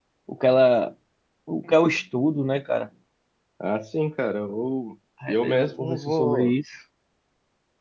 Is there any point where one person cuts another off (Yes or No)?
Yes